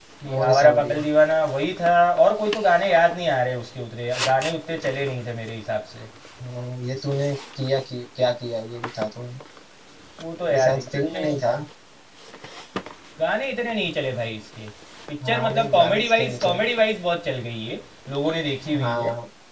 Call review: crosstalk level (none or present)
present